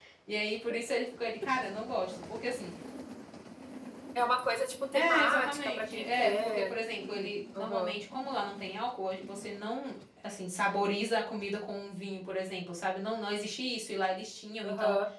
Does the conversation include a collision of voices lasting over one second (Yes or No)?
Yes